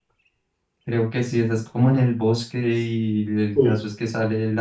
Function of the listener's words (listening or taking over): listening